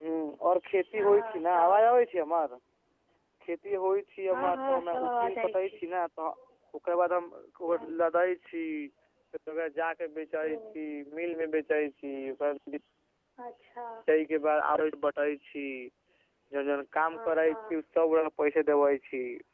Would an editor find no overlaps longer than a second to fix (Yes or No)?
No